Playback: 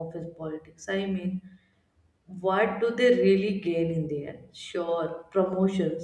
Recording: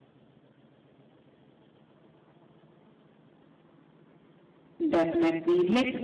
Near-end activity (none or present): present